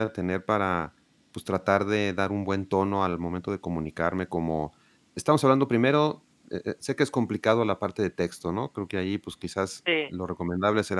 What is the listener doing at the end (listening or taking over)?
listening